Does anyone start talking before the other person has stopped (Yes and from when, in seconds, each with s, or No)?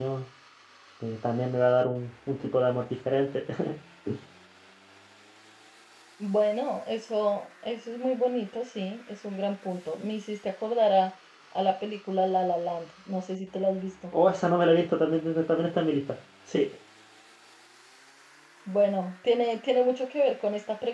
No